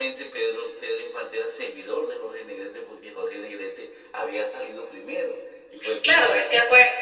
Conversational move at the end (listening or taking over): taking over